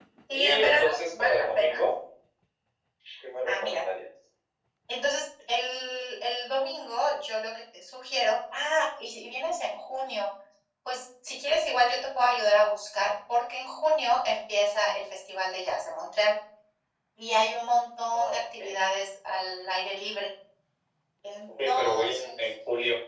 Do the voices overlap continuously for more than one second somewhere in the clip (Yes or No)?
Yes